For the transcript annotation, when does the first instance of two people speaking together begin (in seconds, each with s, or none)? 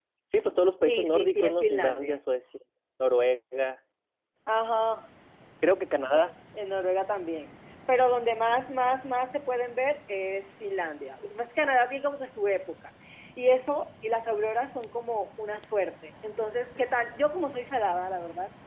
0.8 s